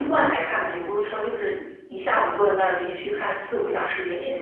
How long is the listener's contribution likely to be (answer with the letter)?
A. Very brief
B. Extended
B